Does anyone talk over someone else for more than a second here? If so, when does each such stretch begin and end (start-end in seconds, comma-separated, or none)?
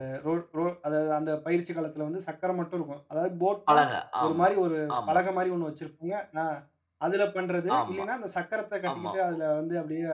none